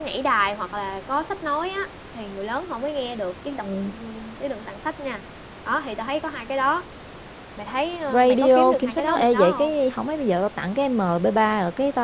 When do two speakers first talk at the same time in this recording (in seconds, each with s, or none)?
8.1 s